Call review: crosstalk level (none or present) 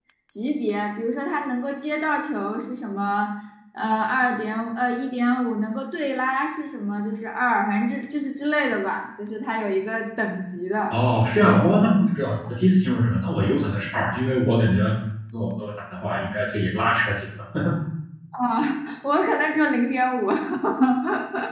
none